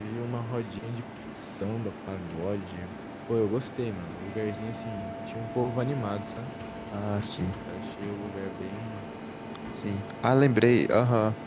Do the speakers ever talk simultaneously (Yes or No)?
No